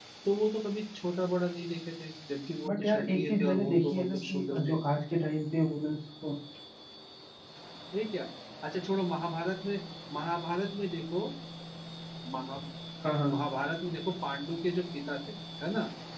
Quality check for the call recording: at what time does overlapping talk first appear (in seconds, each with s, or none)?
2.6 s